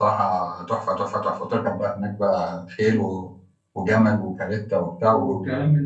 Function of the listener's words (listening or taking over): taking over